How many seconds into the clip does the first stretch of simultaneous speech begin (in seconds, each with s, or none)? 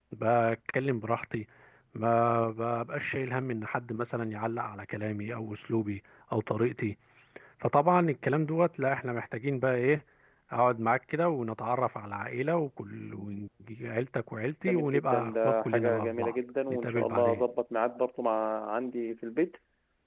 14.7 s